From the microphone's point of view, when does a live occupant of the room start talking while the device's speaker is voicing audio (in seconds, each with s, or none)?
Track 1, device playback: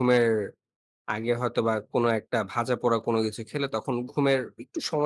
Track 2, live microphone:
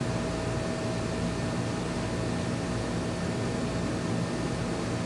none